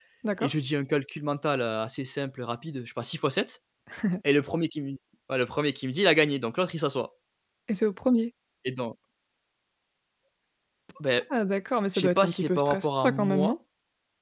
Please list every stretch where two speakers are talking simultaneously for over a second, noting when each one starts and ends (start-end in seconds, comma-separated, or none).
11.9-13.5